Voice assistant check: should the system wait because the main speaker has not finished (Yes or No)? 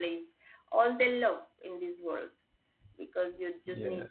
Yes